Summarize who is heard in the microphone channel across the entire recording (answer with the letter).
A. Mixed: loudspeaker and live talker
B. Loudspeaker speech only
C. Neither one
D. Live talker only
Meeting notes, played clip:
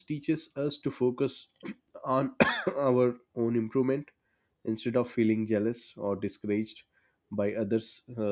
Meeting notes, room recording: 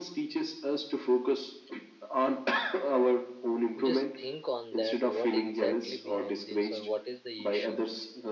A